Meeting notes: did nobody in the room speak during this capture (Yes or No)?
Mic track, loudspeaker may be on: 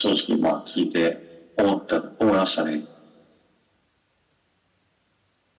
Yes